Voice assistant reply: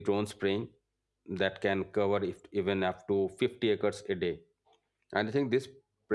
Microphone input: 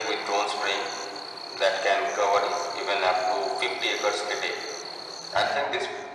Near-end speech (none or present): none